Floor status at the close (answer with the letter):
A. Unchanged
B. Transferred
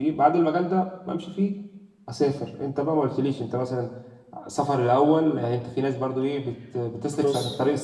A